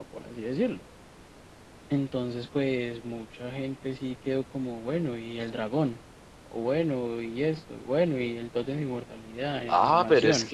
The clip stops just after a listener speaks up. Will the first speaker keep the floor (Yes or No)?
No